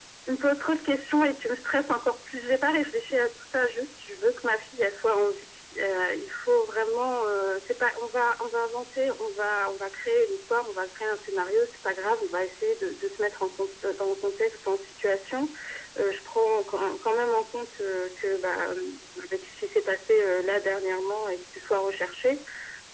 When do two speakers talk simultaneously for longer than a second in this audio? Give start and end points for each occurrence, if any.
none

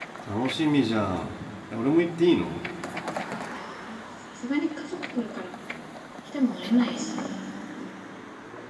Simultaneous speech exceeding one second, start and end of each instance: none

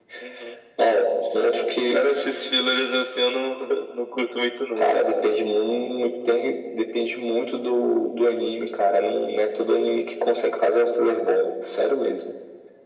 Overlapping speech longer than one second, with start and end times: none

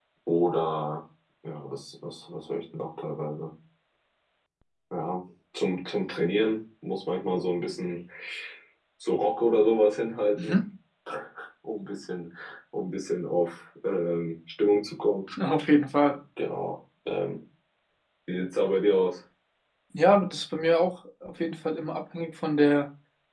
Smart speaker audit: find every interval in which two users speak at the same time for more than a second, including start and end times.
none

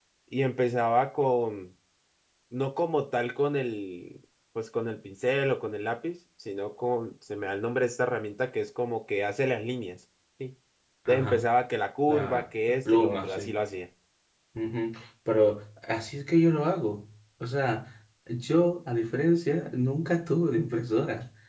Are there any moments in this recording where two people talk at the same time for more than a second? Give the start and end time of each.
12.1-13.5

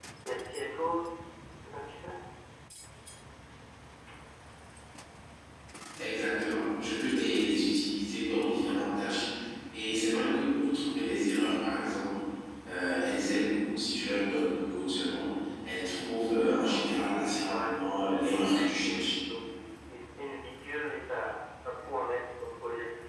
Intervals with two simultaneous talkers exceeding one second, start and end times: 17.5-19.1

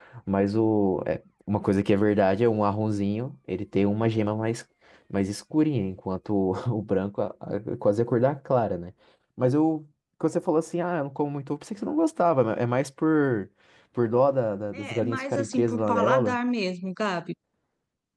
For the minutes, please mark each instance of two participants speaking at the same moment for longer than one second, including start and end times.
14.8-16.4

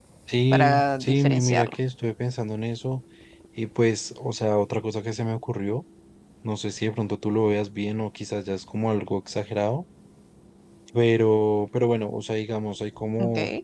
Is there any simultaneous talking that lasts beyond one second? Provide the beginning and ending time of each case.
0.5-1.8

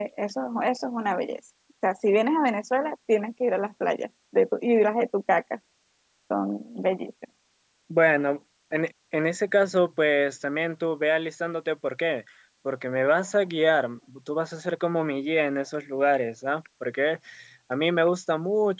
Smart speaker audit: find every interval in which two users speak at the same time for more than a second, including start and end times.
none

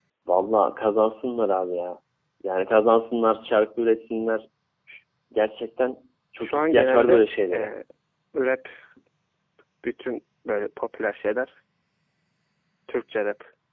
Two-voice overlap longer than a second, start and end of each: 6.4-7.7

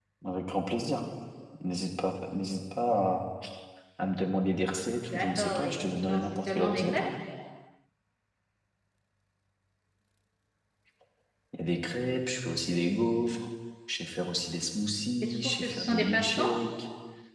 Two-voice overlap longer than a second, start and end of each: 5.0-7.0, 15.2-16.5

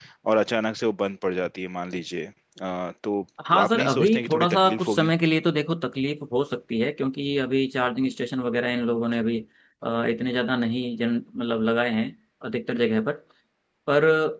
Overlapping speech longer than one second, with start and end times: 3.5-5.1

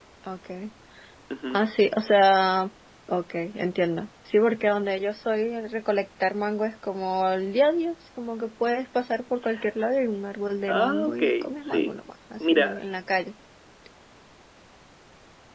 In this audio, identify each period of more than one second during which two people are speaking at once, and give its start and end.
10.7-11.9

